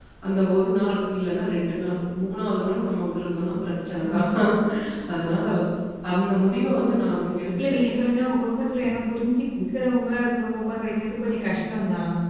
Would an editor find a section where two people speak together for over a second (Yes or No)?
No